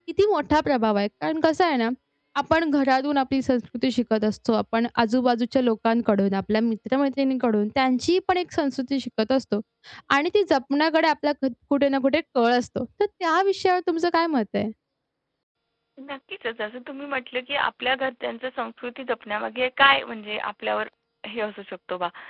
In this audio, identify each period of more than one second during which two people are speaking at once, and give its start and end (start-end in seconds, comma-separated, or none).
none